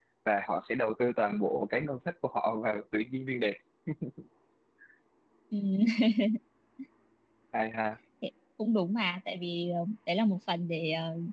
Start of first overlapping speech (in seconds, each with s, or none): none